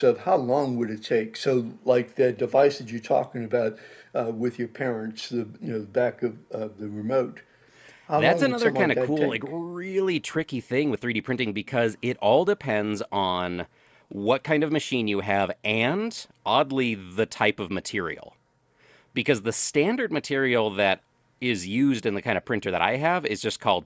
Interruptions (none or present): present